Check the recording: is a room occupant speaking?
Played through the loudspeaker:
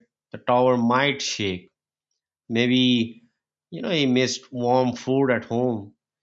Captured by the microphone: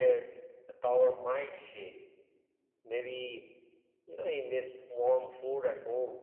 No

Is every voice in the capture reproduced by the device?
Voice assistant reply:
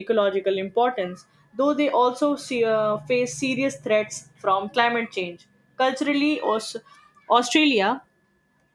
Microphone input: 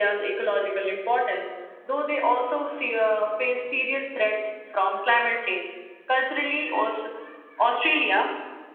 Yes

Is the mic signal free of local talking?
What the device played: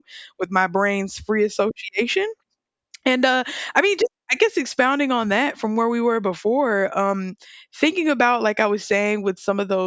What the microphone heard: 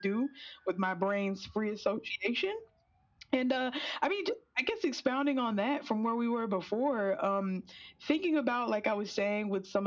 Yes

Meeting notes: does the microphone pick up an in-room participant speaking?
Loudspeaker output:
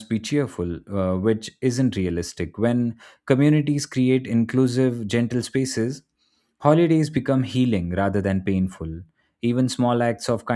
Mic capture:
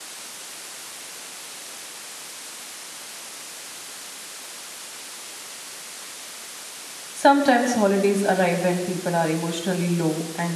Yes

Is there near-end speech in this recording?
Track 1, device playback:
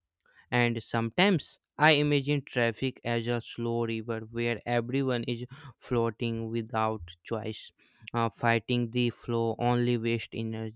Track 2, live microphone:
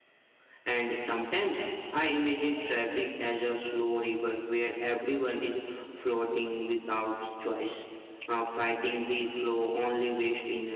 No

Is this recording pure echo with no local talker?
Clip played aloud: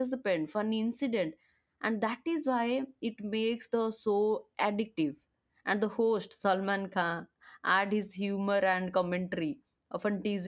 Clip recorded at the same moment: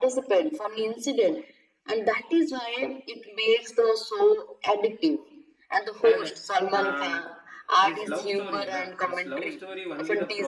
No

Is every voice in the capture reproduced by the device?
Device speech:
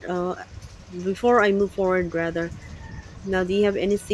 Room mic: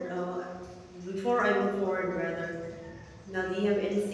Yes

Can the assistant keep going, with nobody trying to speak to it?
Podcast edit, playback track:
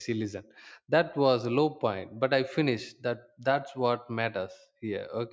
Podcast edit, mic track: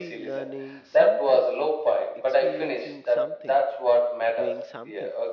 No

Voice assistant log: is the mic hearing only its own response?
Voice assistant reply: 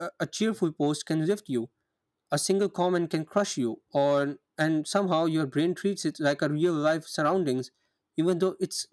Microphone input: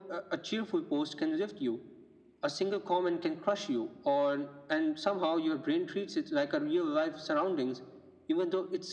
Yes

